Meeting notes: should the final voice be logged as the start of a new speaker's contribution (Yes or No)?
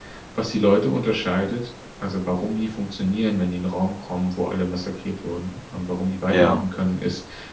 No